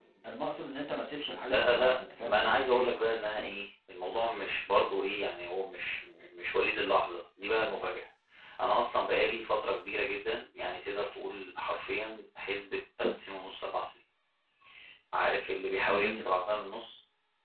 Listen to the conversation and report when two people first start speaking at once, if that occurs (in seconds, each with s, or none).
1.5 s